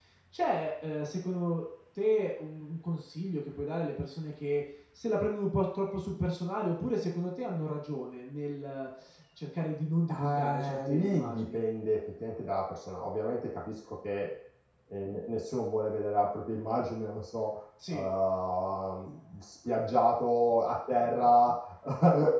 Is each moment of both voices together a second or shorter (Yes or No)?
No